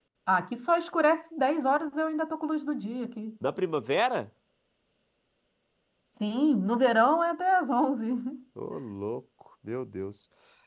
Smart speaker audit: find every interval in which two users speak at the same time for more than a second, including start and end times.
none

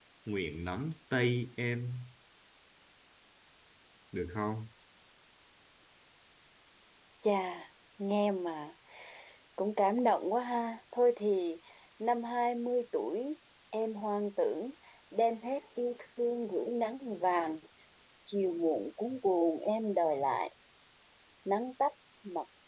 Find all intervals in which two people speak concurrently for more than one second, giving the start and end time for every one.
none

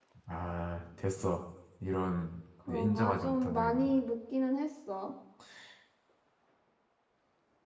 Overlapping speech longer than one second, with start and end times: 2.7-3.9

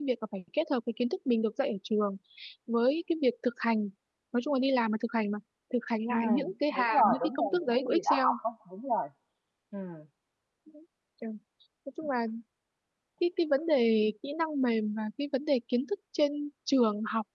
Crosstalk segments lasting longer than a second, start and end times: 6.7-8.3

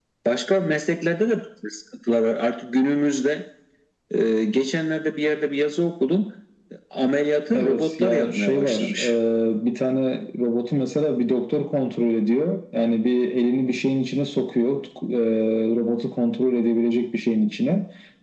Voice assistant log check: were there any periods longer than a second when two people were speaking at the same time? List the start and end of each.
7.5-9.0

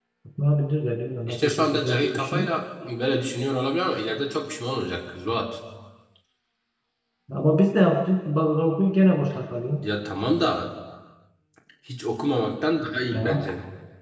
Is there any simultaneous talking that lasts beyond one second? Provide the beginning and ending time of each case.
1.3-2.6

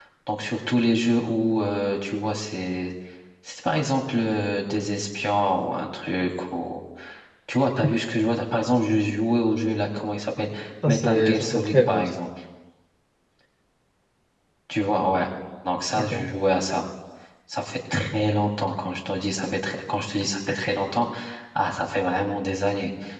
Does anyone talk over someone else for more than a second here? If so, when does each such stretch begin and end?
10.9-12.1

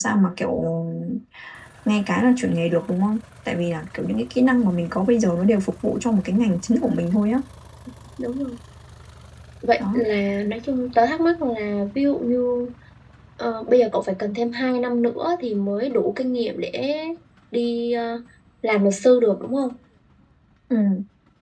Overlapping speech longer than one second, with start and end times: none

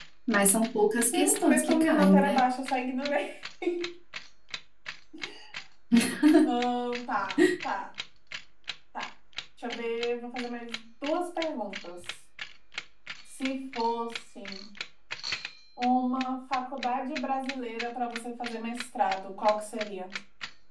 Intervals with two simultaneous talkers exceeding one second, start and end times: 1.1-2.4

